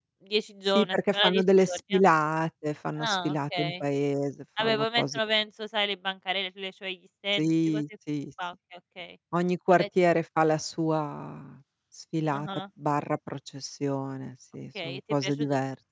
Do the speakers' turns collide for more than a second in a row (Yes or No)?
Yes